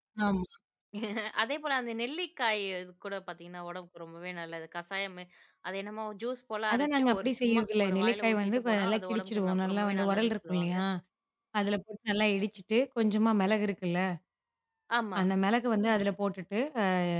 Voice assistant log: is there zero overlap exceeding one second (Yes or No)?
No